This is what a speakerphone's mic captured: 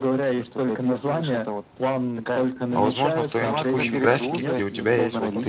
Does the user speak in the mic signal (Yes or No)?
Yes